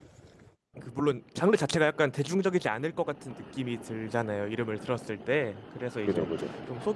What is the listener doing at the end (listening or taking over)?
listening